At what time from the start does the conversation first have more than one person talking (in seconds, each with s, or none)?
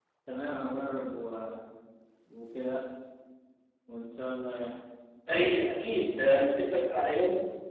none